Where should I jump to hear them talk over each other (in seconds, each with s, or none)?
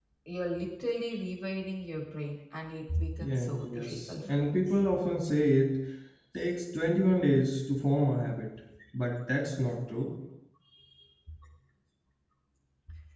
3.2 s